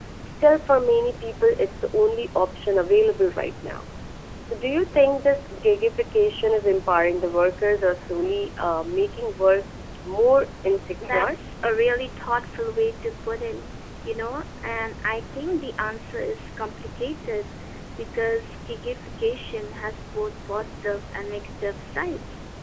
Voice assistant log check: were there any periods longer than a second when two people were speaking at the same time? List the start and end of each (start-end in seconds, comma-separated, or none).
none